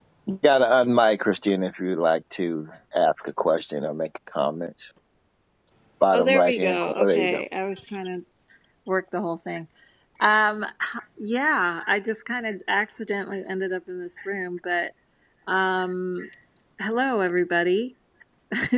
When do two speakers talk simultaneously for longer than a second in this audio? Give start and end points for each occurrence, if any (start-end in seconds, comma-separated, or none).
6.1-7.4